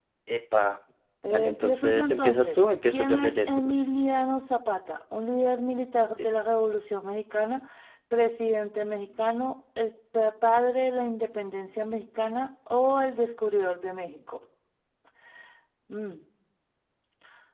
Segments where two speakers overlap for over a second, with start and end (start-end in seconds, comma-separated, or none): 1.3-3.6